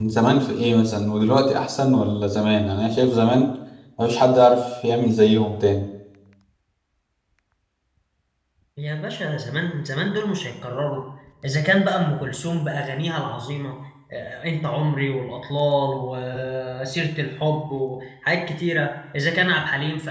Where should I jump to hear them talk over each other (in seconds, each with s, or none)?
none